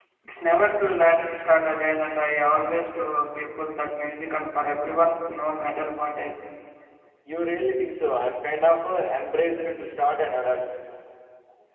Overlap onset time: none

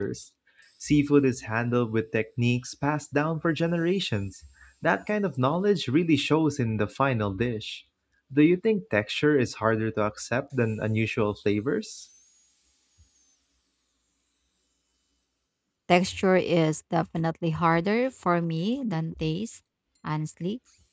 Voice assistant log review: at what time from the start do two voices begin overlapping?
none

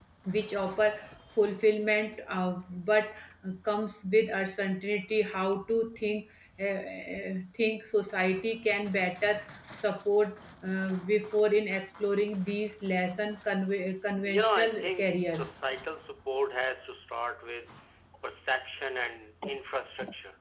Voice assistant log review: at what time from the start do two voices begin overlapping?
14.2 s

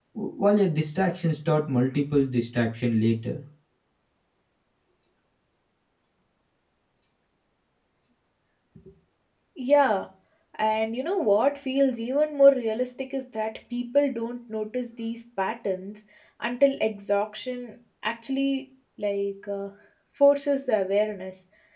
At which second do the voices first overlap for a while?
none

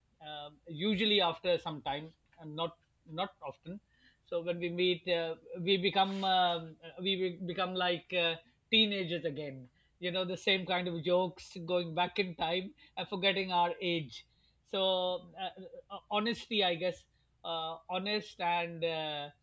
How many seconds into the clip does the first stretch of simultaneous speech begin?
none

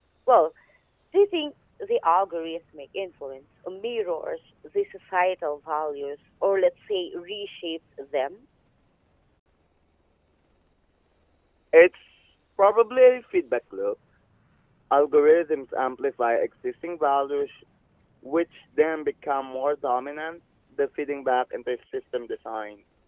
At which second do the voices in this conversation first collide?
none

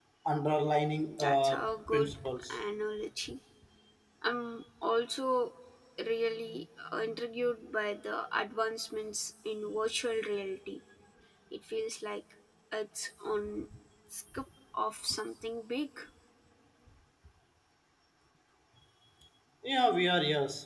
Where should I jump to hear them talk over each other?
1.0 s

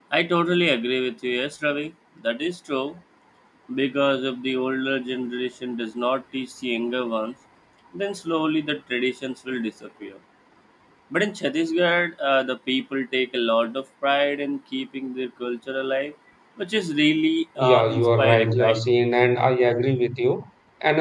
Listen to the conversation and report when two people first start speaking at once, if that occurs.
17.6 s

